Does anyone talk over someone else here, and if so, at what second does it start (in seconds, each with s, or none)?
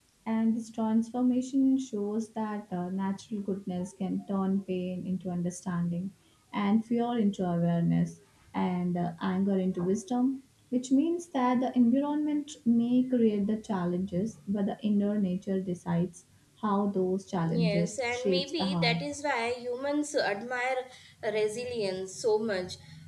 17.4 s